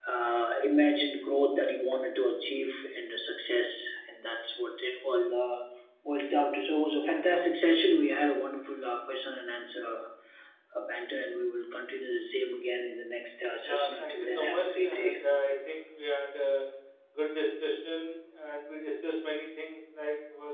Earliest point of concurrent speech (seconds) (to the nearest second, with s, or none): 14 s